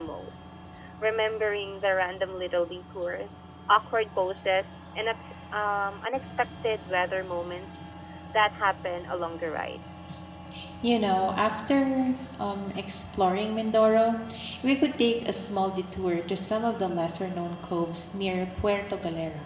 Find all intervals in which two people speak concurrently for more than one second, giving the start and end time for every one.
none

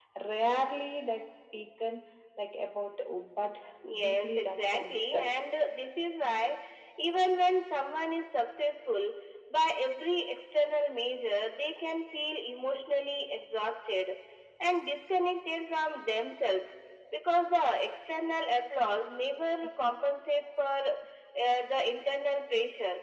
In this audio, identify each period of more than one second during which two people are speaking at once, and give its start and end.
4.0-5.3

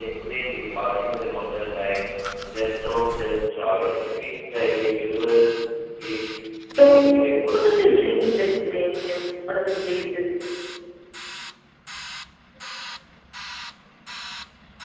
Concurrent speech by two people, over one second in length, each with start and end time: 6.7-8.2

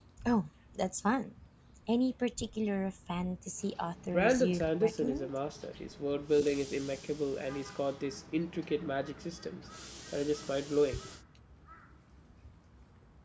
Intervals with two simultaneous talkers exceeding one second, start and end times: 4.0-5.3

